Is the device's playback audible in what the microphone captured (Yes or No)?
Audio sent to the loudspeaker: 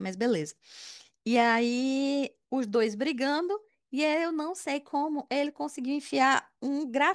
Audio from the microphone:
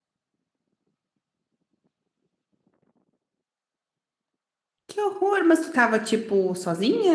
No